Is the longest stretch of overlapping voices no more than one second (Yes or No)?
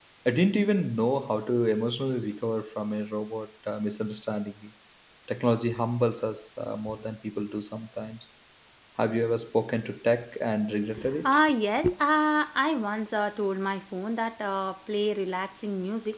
Yes